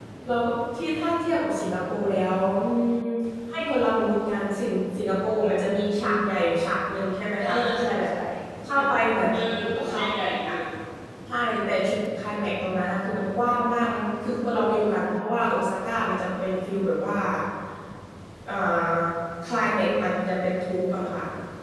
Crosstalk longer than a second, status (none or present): present